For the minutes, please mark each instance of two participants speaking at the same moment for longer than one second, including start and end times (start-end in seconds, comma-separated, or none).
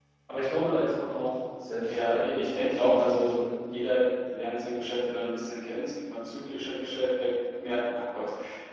1.8-3.4